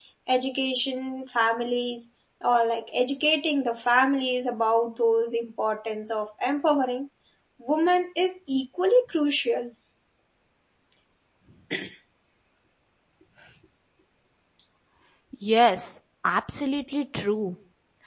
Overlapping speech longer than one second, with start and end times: none

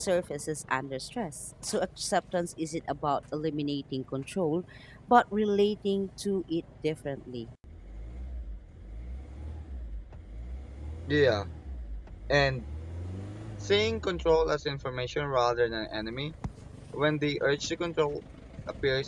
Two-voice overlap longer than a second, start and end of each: none

